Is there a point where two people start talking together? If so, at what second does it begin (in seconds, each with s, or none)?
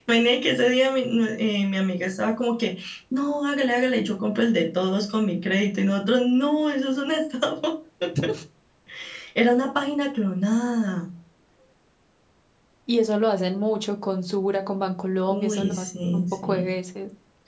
15.3 s